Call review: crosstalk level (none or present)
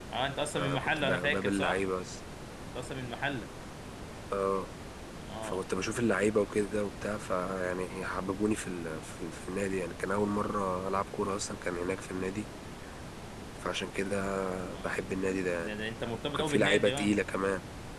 present